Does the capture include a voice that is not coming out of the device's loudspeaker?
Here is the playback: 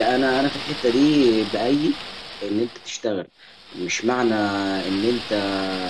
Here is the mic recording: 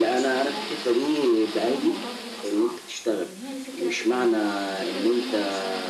Yes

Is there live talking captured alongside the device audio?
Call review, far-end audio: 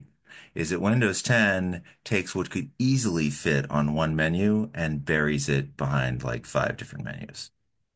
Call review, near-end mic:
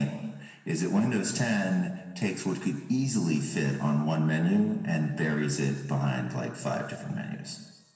No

